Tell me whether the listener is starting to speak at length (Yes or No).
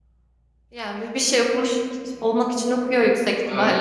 Yes